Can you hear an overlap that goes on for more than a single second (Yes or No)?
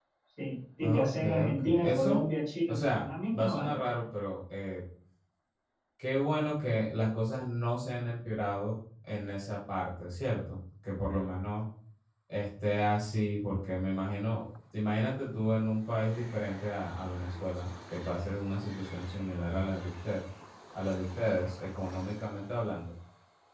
Yes